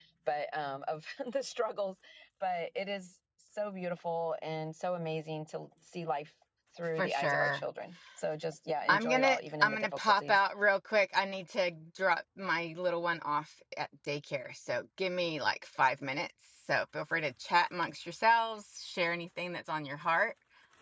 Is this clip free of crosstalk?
No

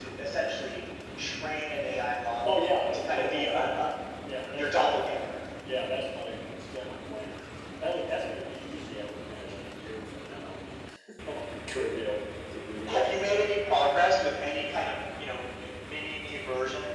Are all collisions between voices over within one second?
No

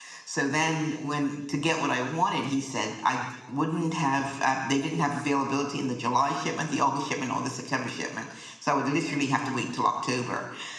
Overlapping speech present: No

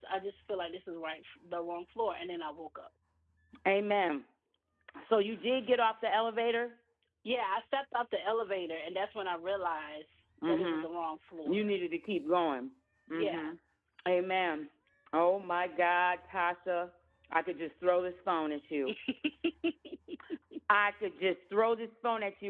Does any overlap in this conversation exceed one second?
No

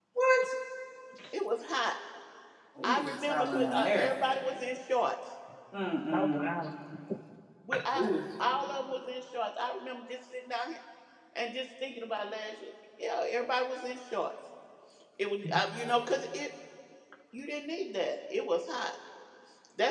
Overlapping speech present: Yes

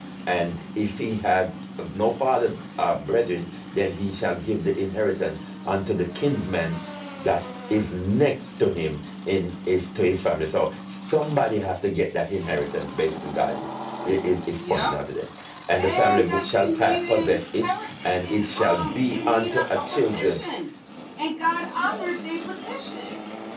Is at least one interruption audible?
Yes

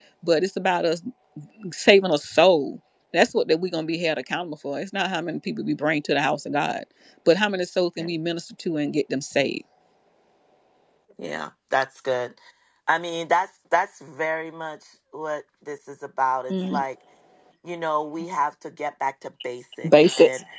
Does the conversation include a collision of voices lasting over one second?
No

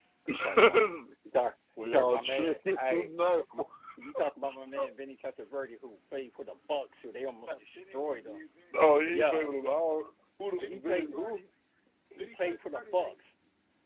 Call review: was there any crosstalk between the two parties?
Yes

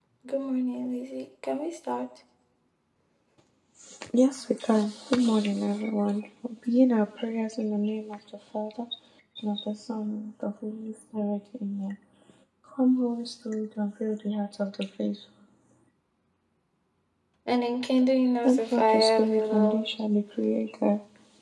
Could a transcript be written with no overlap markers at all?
No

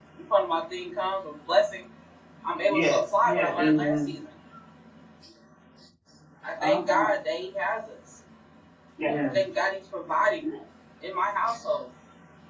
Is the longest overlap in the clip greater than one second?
Yes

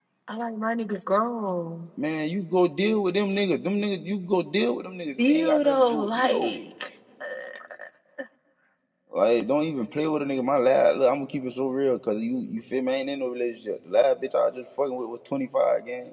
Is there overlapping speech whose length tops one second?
Yes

